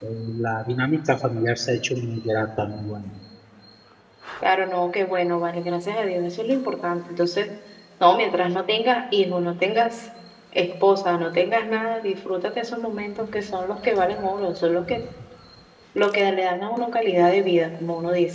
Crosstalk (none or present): none